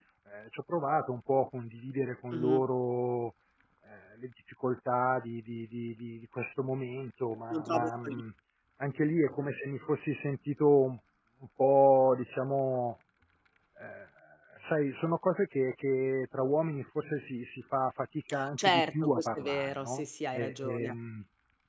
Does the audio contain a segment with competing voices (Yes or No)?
Yes